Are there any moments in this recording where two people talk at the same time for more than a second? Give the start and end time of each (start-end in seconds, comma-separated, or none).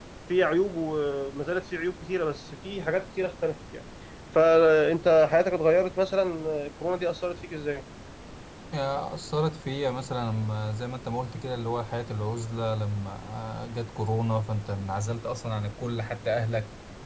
none